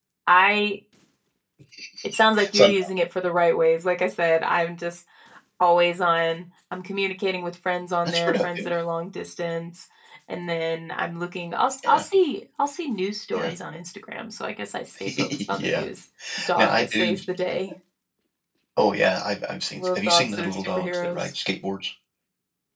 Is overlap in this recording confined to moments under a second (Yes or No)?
No